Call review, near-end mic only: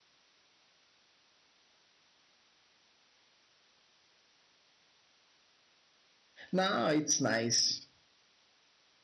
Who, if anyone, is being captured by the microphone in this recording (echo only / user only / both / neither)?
user only